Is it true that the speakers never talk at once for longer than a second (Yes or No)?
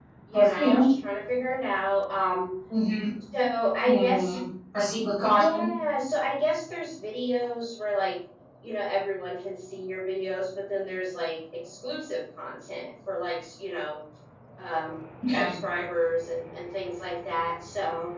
Yes